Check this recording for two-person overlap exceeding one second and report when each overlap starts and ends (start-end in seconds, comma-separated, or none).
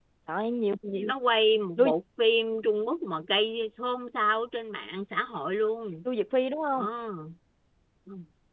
none